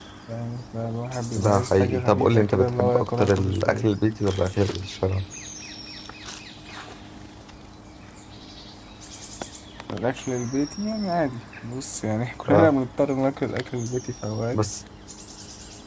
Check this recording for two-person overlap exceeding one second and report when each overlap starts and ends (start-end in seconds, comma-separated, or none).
1.4-3.9